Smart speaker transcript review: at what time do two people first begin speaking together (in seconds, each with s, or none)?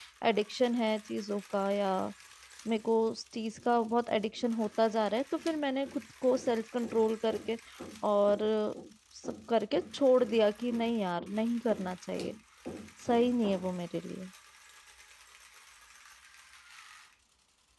none